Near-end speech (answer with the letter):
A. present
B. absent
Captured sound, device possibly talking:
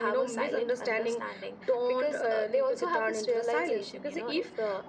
B